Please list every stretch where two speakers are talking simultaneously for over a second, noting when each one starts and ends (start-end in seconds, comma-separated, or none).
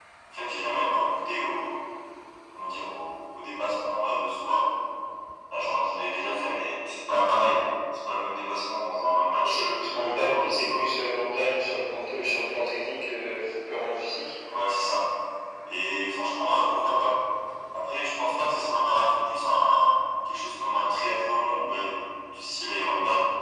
9.5-10.9